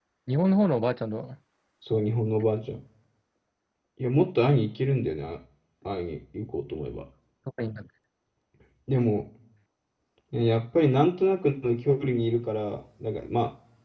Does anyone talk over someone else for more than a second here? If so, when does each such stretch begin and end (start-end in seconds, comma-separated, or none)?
none